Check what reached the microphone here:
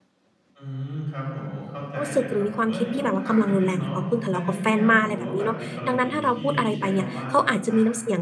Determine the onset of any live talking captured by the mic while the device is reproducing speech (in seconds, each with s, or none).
2.0 s